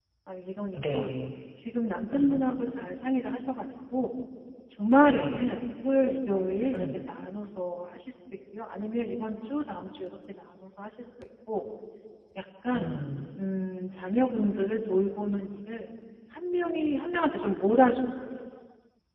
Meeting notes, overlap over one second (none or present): none